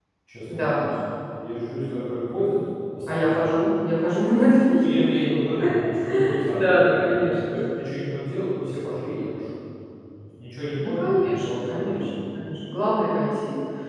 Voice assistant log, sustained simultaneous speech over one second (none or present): present